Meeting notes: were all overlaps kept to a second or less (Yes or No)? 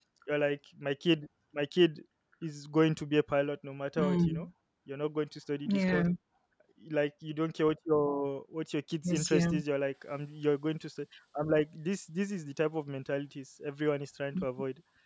Yes